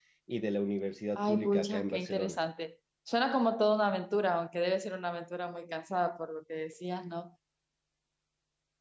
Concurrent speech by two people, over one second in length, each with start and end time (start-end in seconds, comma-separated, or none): 1.2-2.4